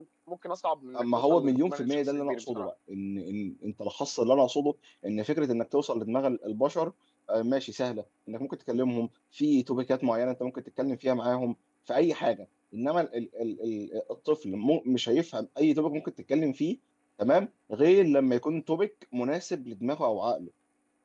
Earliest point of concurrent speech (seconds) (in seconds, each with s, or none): 1.0 s